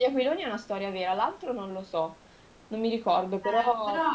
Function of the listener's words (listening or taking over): taking over